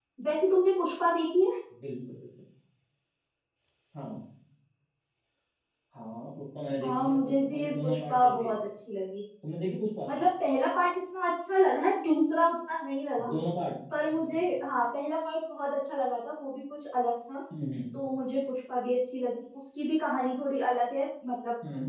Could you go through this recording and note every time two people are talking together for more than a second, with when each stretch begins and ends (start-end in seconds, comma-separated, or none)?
6.8-8.5